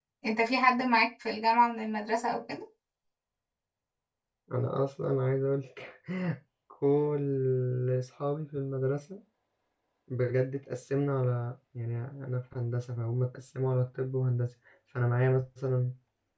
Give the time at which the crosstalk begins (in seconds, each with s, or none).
none